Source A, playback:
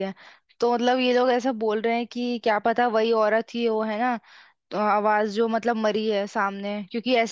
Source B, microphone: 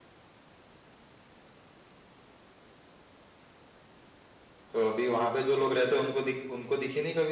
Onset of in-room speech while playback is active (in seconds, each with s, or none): 4.7 s